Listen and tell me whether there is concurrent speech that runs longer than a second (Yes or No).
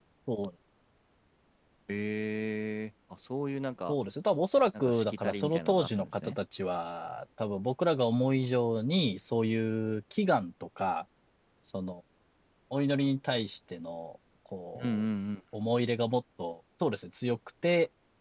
Yes